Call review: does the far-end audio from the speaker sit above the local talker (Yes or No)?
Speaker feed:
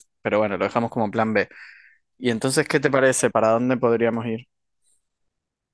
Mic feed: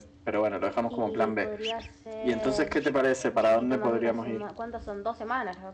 Yes